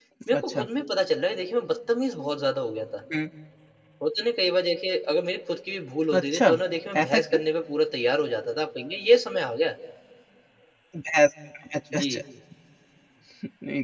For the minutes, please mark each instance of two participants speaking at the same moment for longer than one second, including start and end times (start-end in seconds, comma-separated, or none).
none